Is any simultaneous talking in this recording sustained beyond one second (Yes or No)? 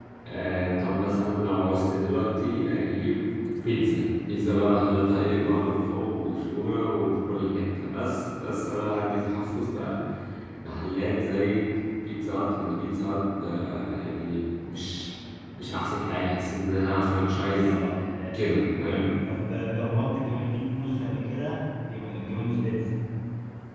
No